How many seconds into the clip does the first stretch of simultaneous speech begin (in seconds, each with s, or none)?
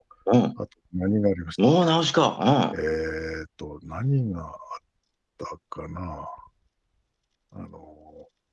none